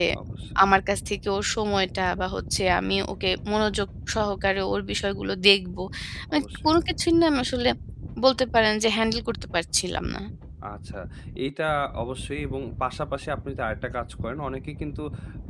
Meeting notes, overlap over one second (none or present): none